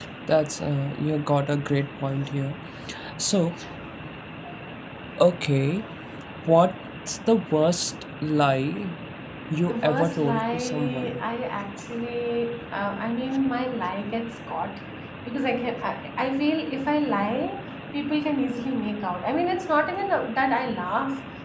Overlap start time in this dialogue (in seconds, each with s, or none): 9.7 s